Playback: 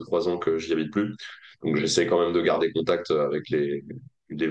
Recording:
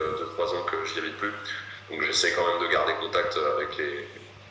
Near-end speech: none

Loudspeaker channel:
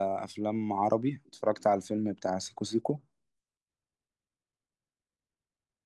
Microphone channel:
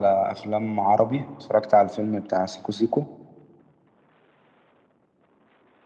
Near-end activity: none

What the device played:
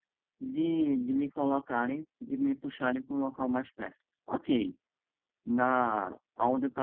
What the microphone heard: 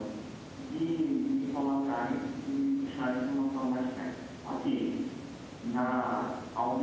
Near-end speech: none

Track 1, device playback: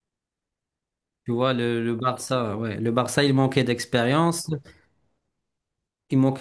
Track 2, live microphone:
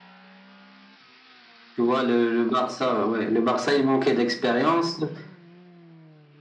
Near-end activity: none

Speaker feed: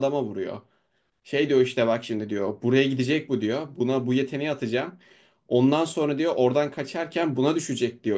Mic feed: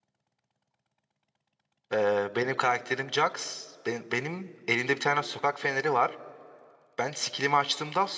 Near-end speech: present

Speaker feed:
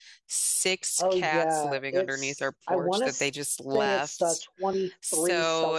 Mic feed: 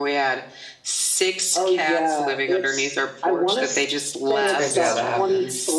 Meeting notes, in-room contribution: present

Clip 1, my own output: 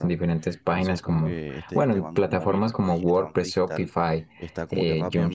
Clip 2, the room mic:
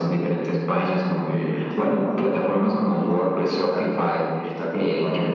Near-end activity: none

